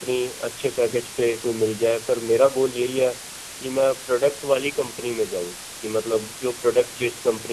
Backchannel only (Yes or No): Yes